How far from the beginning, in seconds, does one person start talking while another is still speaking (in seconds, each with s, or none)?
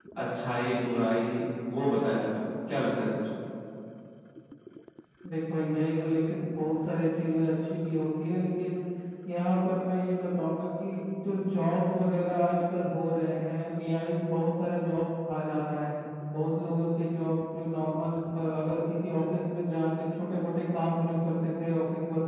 none